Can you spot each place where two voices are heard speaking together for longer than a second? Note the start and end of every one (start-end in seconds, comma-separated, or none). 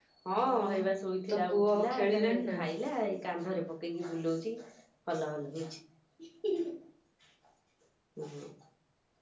1.3-2.6